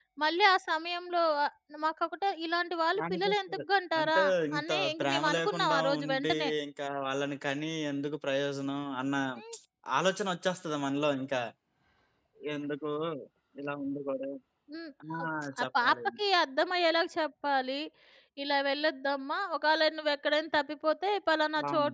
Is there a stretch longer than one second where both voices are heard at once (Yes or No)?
Yes